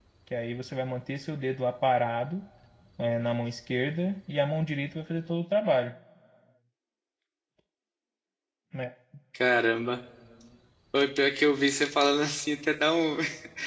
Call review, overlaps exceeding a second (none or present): none